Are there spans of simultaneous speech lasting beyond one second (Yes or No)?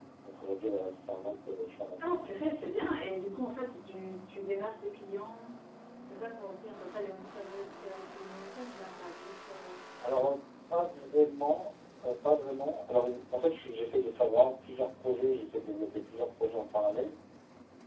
No